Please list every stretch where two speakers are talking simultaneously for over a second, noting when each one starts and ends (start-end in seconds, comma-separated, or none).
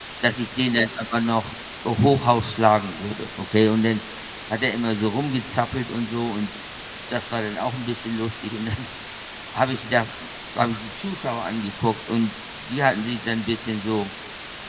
none